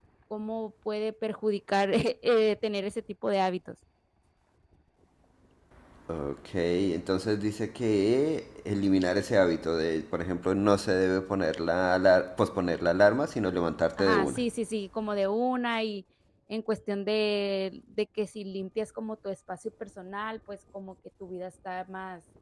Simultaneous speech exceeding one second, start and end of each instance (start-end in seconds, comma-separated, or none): none